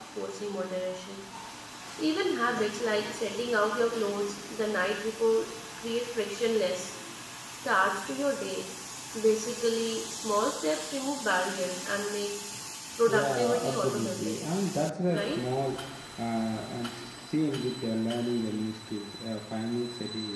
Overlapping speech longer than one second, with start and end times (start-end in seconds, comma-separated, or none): 13.1-14.3